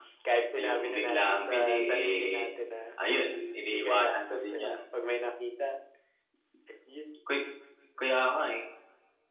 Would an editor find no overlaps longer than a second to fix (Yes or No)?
No